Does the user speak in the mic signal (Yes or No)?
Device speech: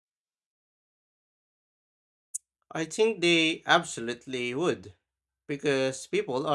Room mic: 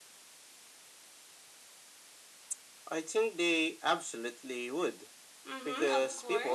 Yes